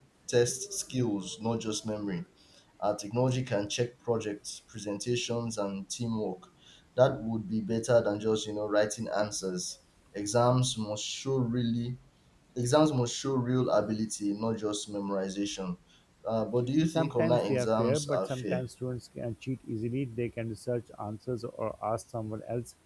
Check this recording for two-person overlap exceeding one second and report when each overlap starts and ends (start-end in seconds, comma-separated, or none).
16.9-18.6